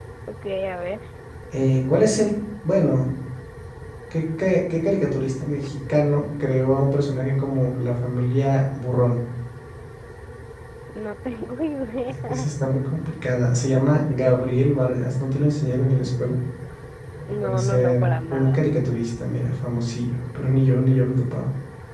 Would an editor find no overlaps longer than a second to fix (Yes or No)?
No